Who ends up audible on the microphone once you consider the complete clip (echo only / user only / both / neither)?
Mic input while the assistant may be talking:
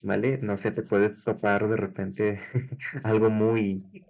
echo only